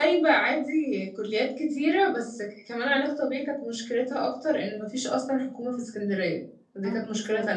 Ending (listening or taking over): taking over